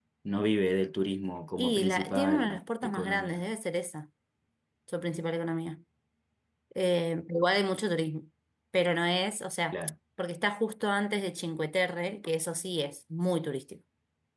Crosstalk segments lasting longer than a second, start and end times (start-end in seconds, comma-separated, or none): 1.6-3.4